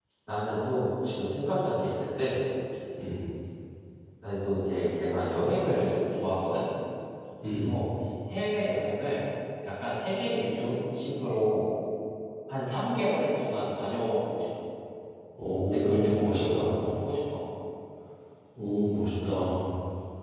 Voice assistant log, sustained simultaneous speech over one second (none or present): present